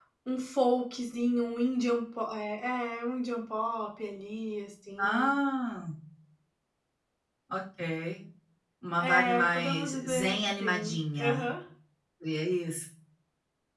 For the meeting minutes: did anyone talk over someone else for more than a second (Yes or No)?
Yes